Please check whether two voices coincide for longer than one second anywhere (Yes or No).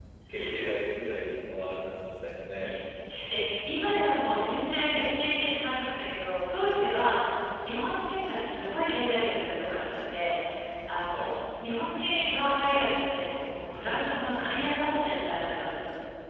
No